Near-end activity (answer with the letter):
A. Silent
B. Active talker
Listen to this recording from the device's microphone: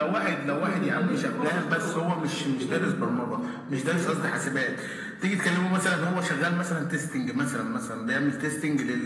B